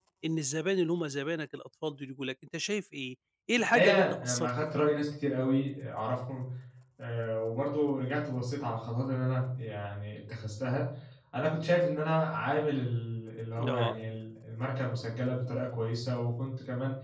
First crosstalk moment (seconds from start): 3.6 s

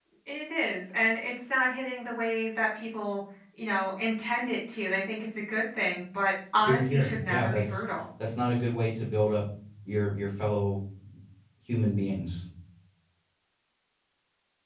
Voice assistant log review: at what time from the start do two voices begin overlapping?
6.6 s

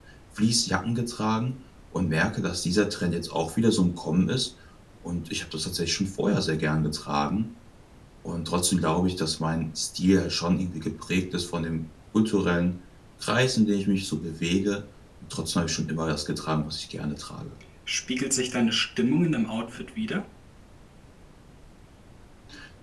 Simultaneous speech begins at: none

